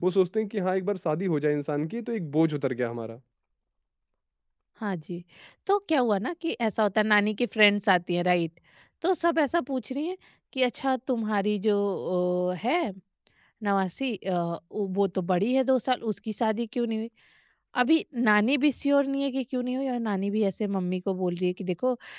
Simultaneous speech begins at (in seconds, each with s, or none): none